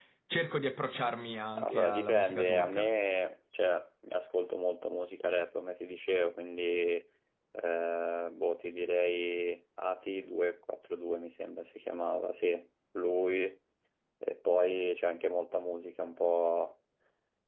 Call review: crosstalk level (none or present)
present